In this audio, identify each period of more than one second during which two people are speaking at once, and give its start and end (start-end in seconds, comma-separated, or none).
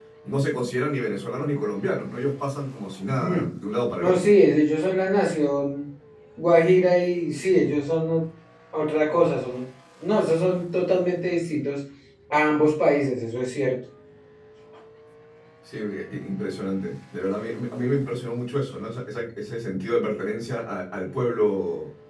none